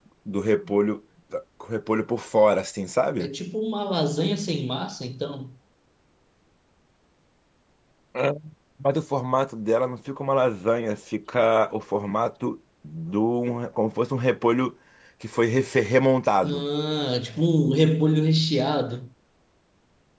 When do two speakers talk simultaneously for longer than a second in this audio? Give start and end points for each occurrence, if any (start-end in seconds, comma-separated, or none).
none